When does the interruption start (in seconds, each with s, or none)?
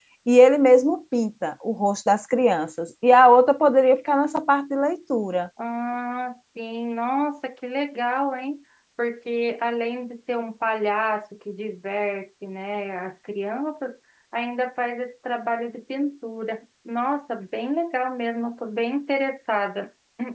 none